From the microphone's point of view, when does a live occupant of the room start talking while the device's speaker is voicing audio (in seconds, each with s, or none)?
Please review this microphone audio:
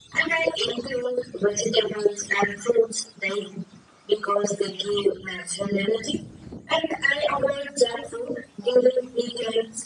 none